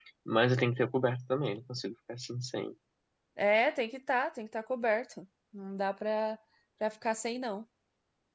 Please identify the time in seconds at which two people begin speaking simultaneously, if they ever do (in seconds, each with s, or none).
none